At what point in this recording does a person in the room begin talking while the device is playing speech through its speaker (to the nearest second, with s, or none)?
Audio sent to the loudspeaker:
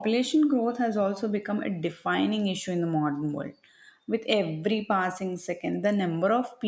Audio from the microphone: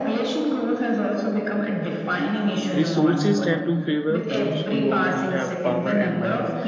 3 s